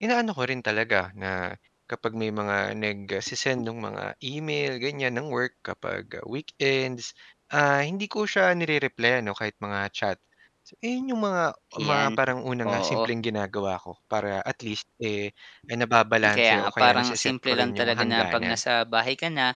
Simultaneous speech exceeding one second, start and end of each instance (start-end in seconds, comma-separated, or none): 16.2-18.6